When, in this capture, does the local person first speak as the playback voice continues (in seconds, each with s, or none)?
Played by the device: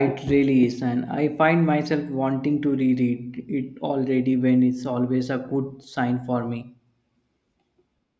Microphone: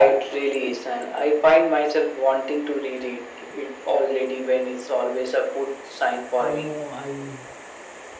6.4 s